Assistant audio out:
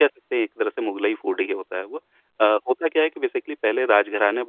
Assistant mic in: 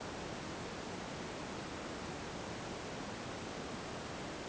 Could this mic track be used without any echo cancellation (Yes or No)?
Yes